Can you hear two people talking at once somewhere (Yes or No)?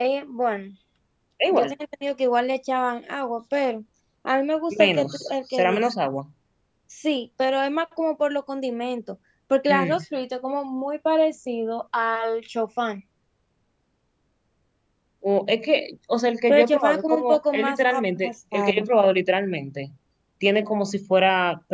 Yes